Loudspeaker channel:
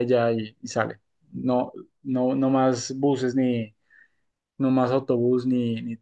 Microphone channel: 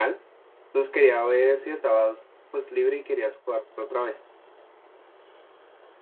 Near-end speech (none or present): present